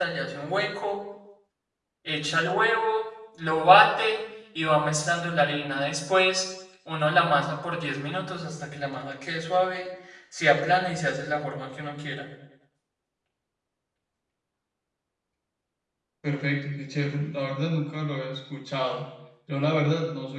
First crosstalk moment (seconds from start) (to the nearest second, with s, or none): none